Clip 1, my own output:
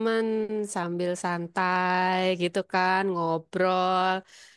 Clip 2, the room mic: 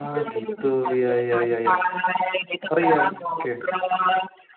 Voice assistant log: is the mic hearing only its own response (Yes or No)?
No